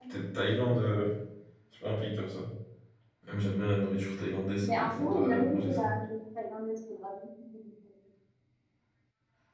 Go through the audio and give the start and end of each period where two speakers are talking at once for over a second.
4.7-5.9

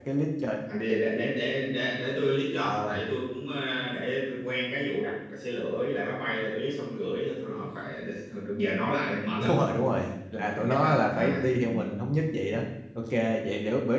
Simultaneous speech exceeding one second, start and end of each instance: 10.3-11.7

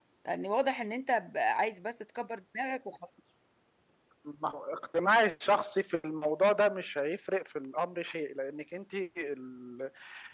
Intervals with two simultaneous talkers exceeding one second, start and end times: none

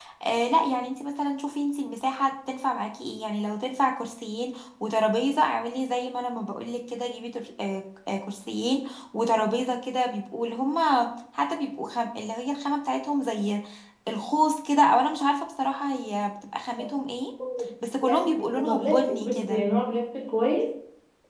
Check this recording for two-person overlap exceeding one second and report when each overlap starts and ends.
18.0-19.7

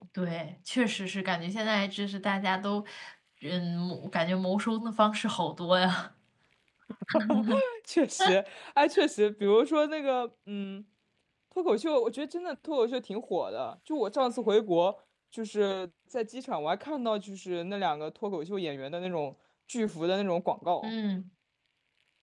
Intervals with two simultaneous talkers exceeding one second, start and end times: none

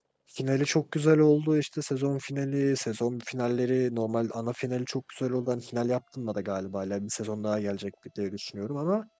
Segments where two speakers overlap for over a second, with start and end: none

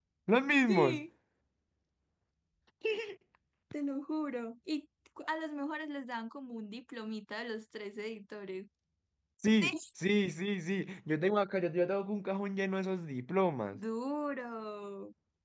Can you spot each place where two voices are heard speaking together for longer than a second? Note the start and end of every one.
none

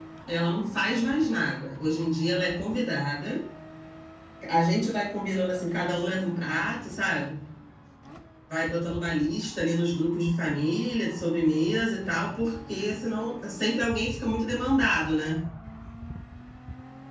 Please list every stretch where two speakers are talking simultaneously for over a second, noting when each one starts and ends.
none

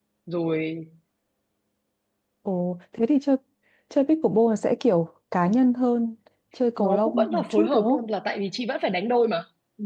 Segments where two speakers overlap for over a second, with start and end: 6.8-8.0

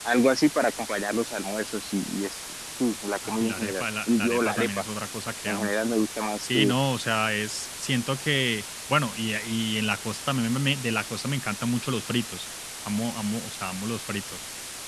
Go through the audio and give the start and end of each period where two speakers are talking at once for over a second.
3.3-4.7

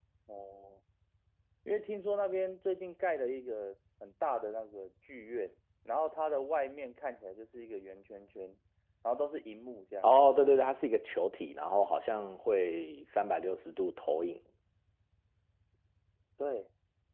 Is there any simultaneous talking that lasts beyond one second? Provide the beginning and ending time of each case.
none

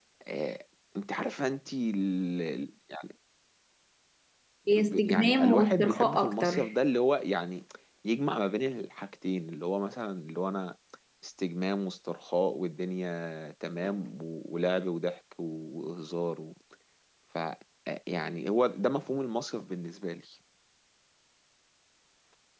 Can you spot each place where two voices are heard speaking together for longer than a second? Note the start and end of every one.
4.8-6.7

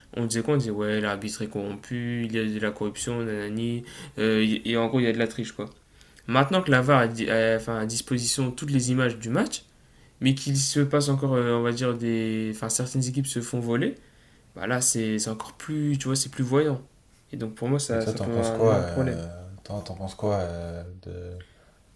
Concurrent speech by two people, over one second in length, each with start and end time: 17.9-19.2

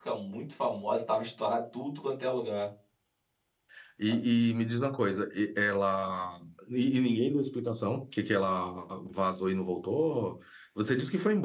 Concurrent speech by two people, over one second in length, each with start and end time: none

